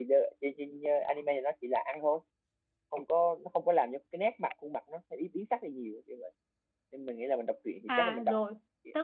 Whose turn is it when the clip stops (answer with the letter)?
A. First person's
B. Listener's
B